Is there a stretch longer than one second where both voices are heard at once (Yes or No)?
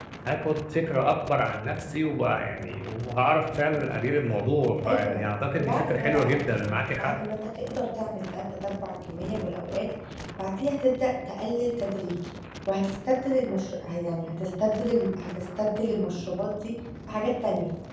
Yes